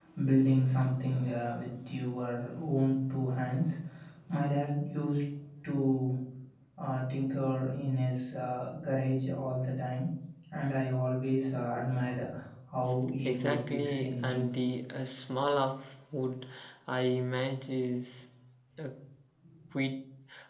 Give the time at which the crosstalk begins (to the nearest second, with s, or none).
13 s